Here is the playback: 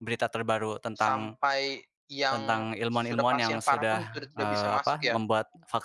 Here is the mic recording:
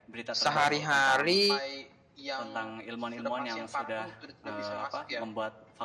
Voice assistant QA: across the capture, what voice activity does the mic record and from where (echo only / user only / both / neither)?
both